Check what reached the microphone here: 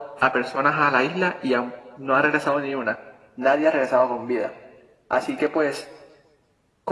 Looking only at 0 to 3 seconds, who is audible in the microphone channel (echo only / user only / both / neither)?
echo only